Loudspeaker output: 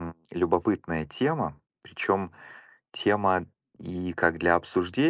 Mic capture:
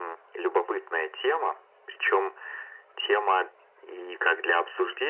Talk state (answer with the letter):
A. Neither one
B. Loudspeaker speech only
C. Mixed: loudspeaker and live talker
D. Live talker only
B